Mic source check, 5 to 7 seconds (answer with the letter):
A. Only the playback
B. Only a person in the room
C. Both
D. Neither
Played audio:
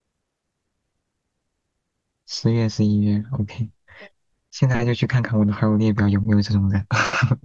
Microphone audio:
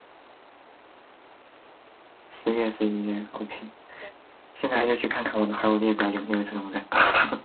A